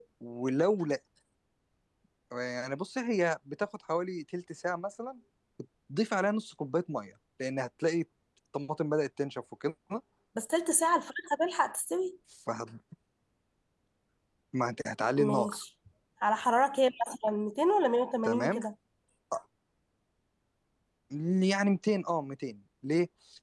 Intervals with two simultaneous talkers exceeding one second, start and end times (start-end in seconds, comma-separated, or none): none